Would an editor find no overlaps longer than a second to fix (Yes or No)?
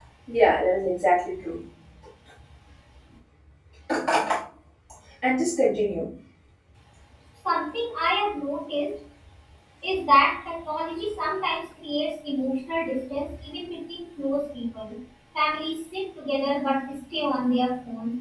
Yes